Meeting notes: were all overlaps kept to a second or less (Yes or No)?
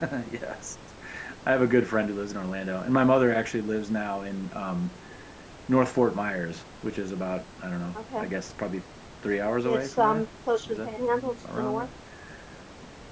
No